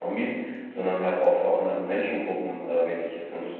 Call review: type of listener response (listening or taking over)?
listening